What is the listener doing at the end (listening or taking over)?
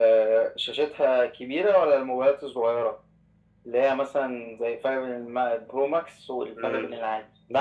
taking over